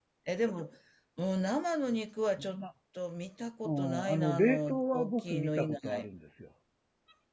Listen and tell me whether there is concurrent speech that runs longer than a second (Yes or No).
Yes